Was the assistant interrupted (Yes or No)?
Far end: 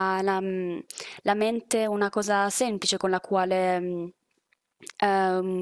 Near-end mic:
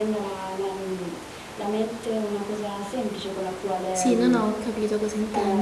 Yes